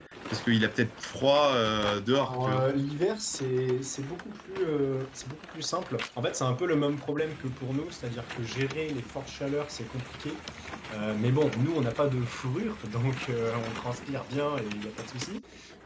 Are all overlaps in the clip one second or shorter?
Yes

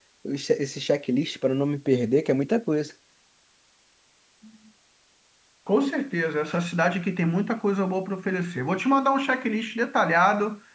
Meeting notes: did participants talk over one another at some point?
No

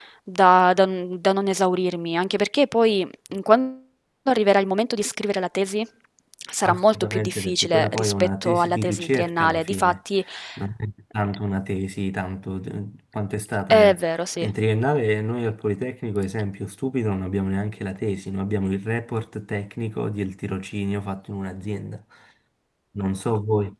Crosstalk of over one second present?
Yes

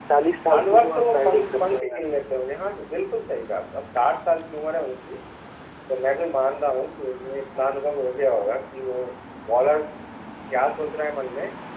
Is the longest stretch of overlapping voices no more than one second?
No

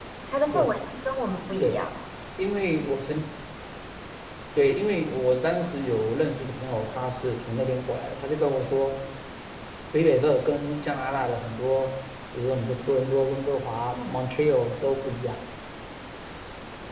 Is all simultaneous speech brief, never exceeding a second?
Yes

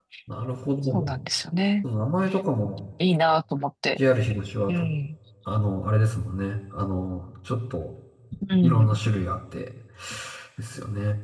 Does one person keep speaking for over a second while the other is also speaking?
No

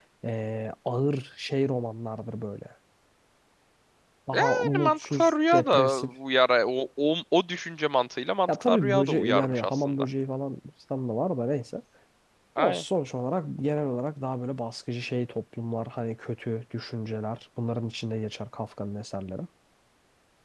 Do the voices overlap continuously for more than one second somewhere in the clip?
Yes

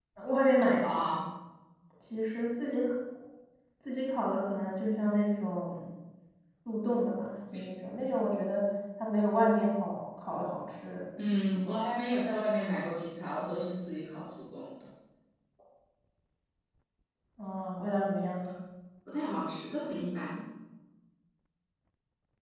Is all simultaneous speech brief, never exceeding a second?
Yes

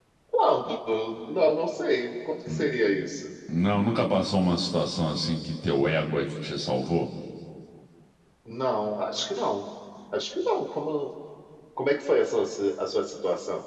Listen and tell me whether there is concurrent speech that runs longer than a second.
No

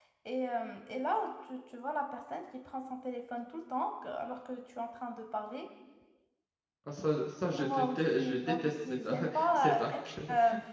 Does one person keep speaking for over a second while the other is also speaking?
Yes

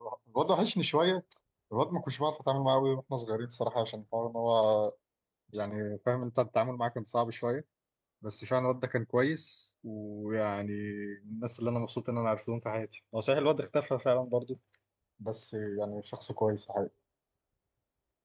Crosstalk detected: No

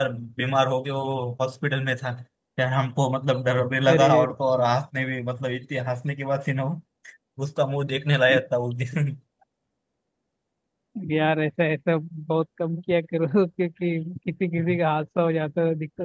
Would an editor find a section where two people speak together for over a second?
No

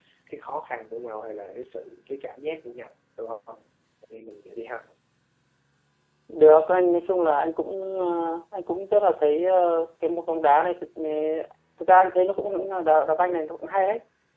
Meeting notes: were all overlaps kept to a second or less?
Yes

